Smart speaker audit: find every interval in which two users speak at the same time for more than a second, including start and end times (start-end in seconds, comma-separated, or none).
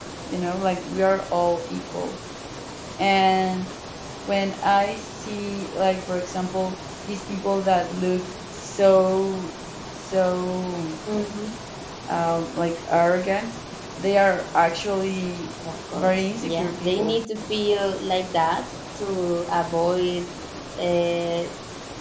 16.0-17.2